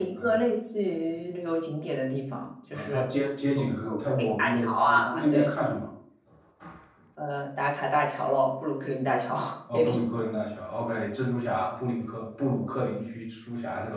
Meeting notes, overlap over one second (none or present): present